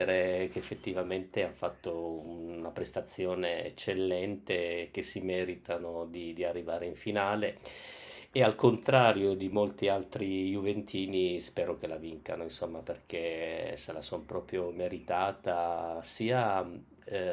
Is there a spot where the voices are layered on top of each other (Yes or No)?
No